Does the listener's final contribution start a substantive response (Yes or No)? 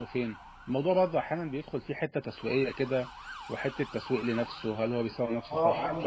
Yes